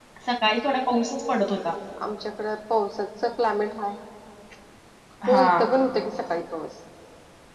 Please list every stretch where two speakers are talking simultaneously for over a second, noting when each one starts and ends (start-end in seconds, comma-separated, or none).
none